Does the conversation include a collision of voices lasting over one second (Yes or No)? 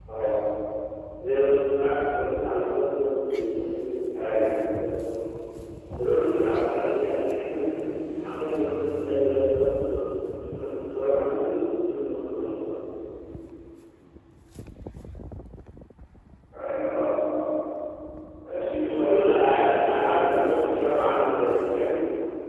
Yes